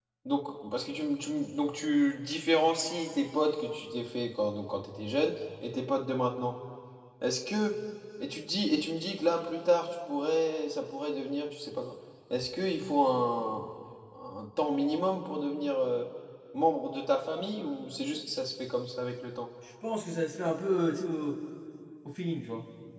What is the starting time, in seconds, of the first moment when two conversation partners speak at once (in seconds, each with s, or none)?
none